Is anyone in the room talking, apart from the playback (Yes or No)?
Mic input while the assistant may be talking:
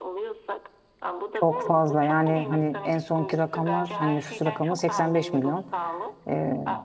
Yes